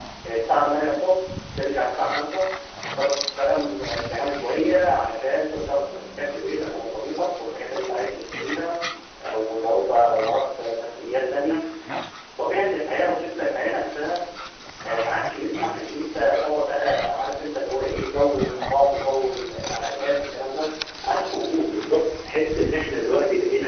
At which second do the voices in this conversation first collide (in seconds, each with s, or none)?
none